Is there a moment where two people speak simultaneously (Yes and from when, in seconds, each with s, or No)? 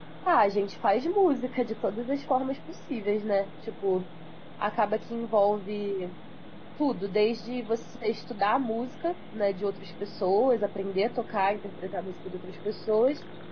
No